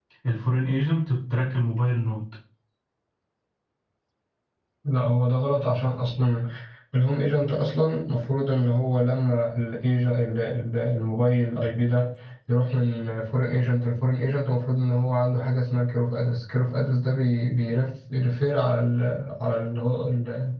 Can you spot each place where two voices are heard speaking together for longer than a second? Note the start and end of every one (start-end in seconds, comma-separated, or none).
none